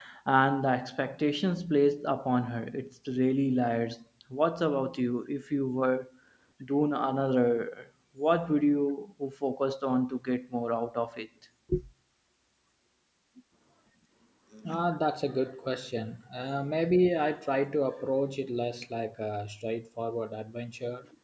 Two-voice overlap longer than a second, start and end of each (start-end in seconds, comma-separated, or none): none